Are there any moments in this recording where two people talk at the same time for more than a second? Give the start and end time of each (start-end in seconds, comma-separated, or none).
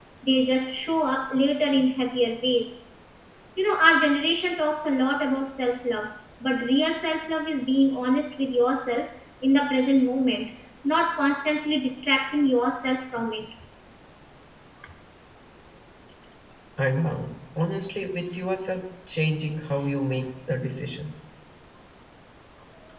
none